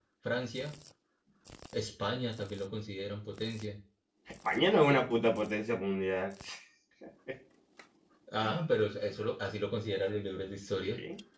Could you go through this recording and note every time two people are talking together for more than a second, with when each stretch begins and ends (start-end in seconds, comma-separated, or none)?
none